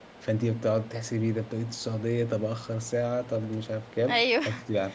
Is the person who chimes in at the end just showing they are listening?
Yes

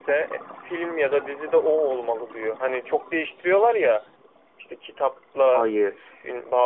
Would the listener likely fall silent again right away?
Yes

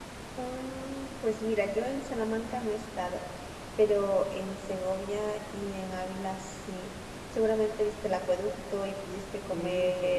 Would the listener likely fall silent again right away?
No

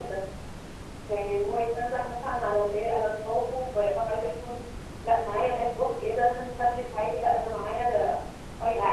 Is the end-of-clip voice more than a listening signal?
Yes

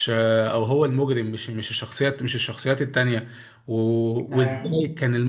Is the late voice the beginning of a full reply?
No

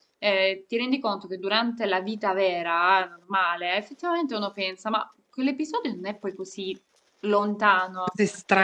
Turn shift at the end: Yes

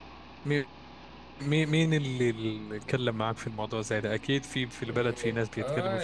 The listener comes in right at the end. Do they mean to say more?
Yes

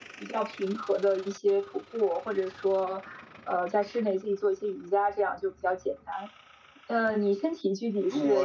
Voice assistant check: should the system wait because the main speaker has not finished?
No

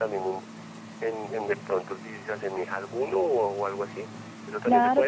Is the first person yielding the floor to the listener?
Yes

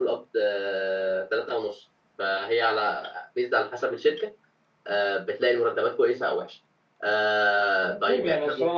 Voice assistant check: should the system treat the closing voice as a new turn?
Yes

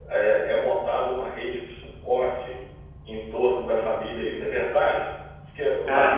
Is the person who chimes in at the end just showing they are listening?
Yes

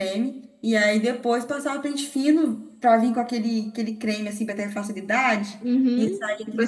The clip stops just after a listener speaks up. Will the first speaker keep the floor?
No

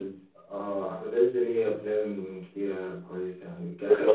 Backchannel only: Yes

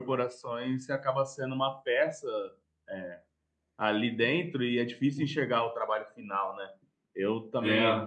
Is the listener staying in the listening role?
Yes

